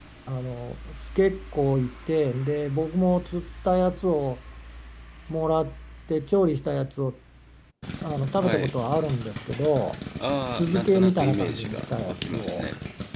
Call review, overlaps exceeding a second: present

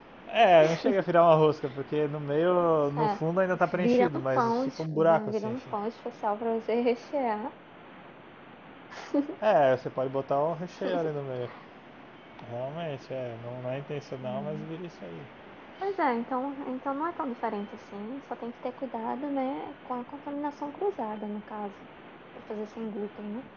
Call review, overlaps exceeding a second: present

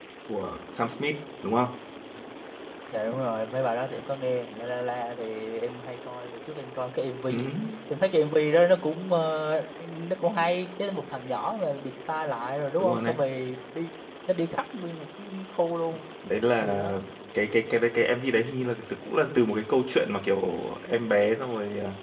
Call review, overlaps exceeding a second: none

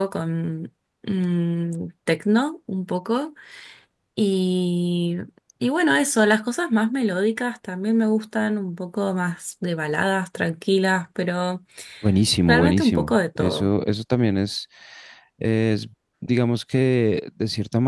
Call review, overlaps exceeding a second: present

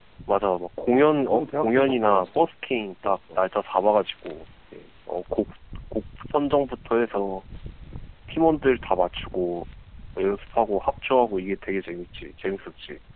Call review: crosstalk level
present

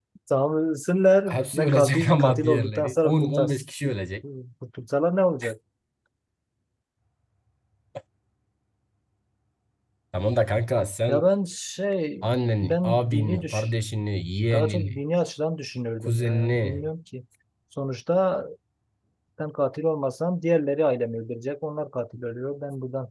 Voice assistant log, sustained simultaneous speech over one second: present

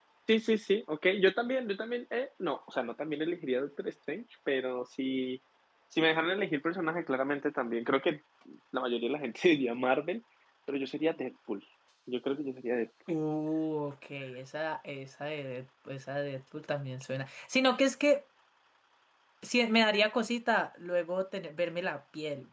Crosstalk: none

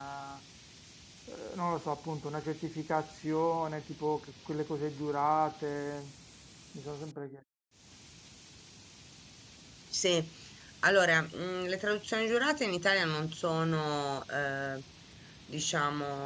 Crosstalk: none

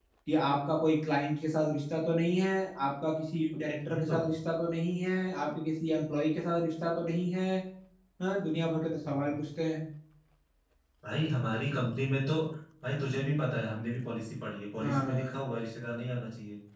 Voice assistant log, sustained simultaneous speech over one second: none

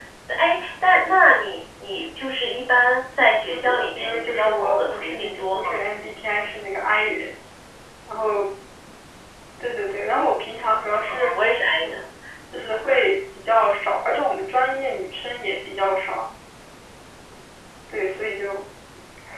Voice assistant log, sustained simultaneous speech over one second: present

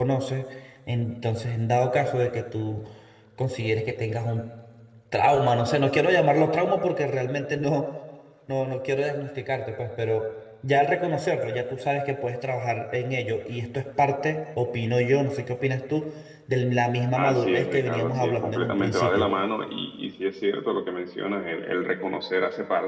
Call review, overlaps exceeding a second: present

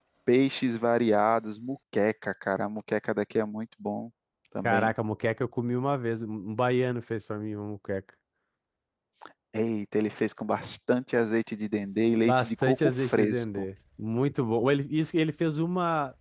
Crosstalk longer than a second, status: present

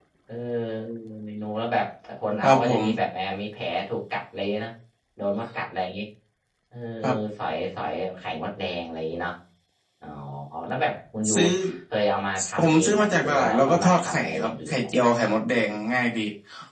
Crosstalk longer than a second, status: present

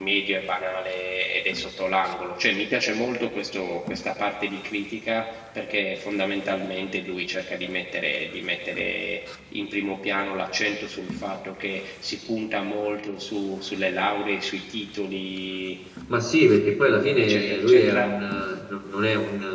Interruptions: present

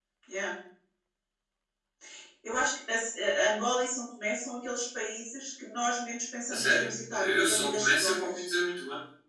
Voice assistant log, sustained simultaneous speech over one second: present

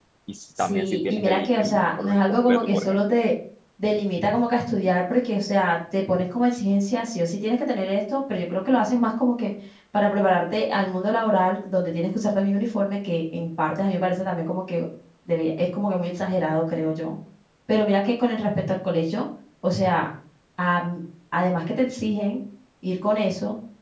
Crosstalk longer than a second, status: present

